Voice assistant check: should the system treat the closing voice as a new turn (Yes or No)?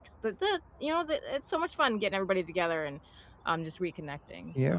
Yes